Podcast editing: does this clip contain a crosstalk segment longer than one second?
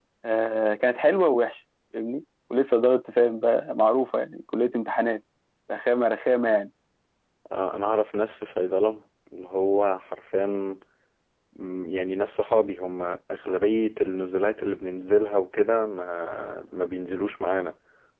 No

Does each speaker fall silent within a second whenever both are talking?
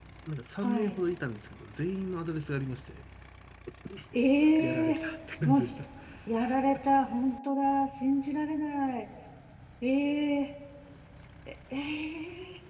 Yes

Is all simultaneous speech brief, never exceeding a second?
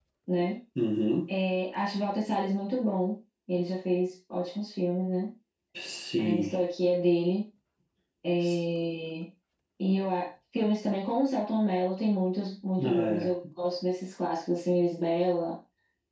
Yes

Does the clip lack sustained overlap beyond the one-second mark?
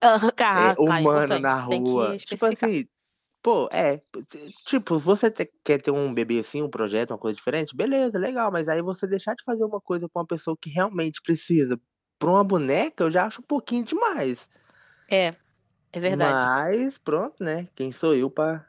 No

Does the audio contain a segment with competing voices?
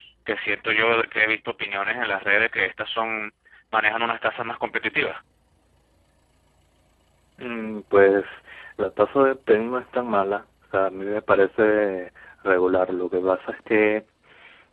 No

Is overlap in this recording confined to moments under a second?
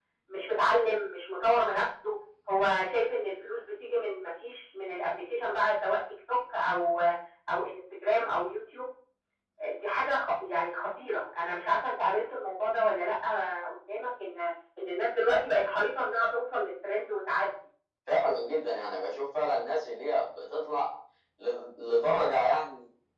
Yes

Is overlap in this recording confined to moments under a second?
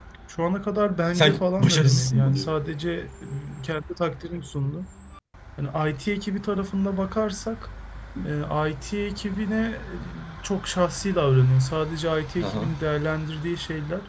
No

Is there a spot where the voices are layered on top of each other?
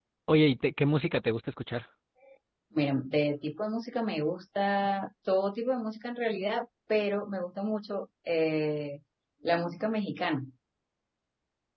No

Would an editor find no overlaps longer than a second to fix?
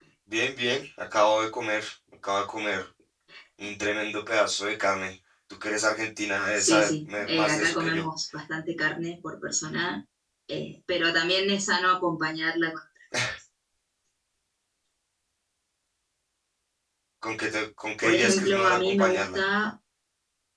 No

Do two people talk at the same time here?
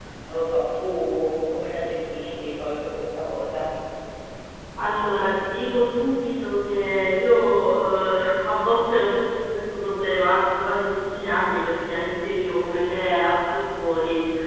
No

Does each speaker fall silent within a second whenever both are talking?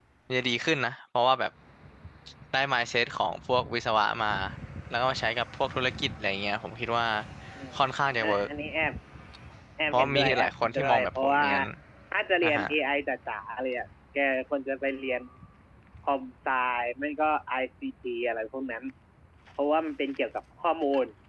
No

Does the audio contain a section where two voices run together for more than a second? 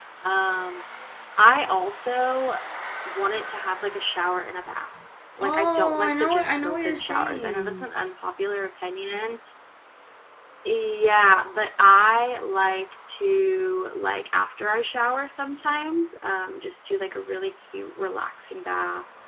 Yes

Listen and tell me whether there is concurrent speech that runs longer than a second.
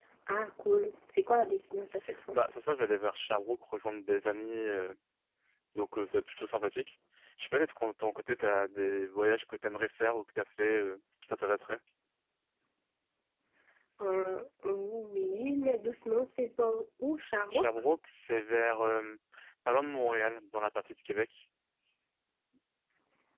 No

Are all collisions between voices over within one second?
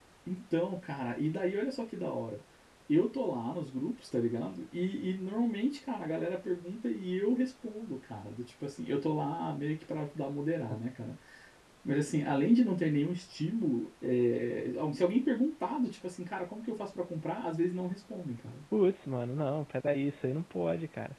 Yes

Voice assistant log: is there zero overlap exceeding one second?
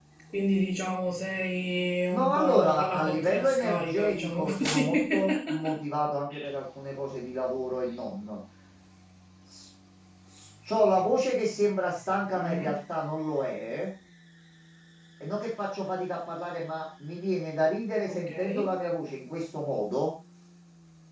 No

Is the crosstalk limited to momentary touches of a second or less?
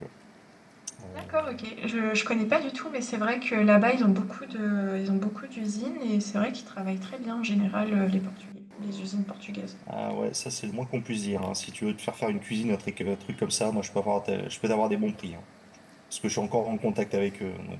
Yes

